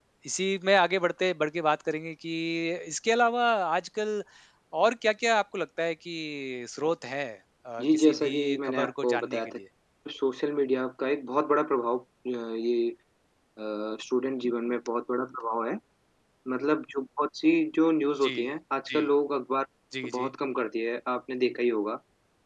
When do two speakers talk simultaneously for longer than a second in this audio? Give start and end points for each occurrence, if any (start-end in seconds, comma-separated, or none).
7.8-9.6